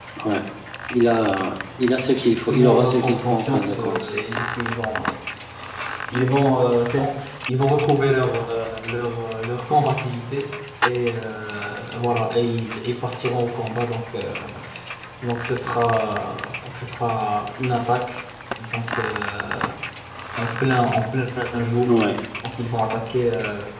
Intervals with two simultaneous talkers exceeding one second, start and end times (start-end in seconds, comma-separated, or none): 2.5-4.1